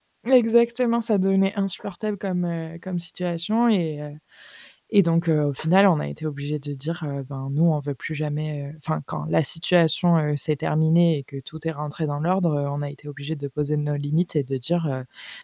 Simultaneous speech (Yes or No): No